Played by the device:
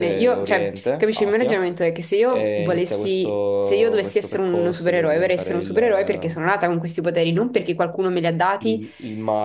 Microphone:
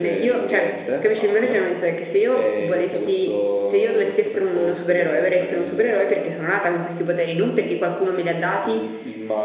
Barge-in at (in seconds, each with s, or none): none